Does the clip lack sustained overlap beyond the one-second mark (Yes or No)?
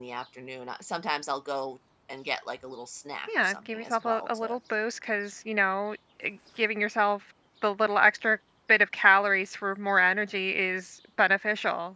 No